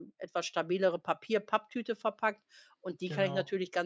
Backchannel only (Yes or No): Yes